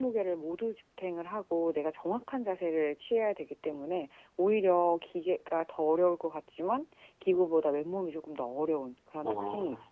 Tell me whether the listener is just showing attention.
No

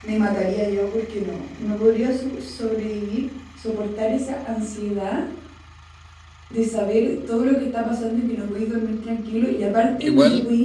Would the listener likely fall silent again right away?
Yes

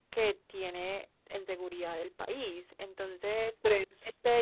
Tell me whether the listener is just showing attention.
Yes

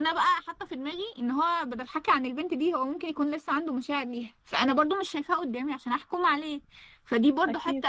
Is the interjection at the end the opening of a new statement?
No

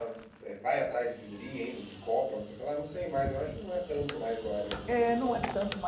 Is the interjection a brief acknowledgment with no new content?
No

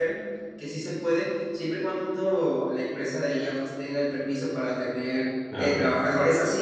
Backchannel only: Yes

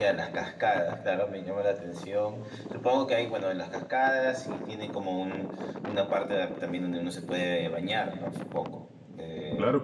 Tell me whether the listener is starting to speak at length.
Yes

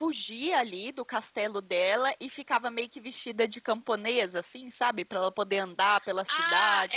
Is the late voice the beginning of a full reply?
Yes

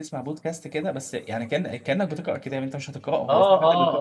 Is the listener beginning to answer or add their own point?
Yes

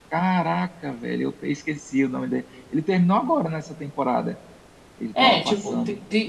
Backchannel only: No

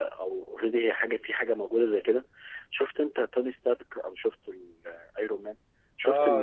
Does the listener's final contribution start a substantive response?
Yes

